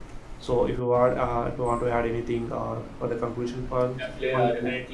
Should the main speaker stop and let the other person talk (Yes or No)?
Yes